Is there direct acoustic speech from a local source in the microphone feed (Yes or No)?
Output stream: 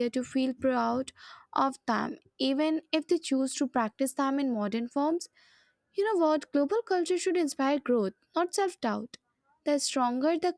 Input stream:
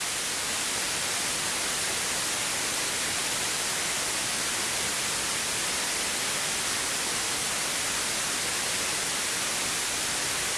No